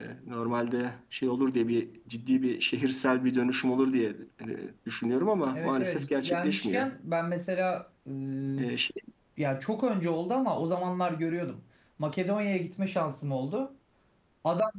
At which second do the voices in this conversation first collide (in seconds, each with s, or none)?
5.5 s